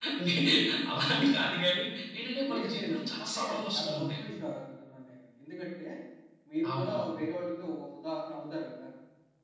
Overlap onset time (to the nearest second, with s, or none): 2 s